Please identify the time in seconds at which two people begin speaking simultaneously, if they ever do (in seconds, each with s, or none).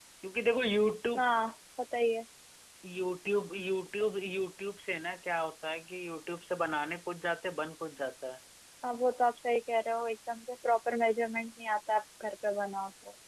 none